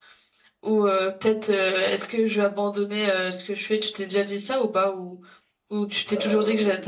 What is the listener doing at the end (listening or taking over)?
taking over